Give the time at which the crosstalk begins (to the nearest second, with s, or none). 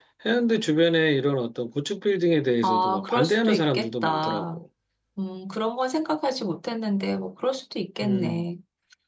3 s